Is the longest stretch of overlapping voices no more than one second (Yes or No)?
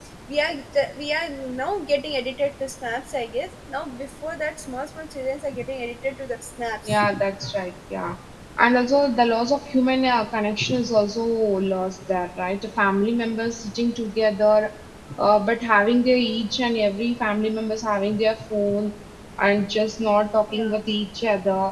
Yes